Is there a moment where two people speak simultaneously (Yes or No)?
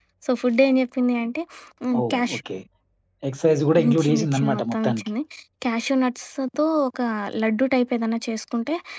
Yes